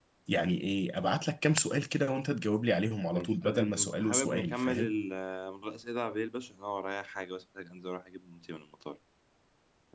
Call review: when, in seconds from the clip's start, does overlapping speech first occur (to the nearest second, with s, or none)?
3 s